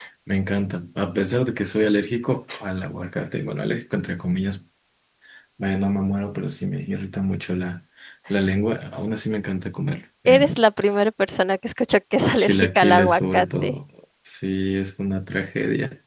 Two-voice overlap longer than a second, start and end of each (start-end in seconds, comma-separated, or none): 12.4-13.7